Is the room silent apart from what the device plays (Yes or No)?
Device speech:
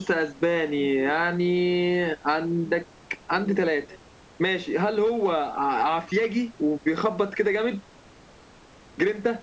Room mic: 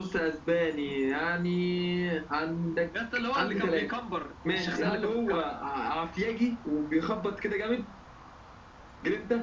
No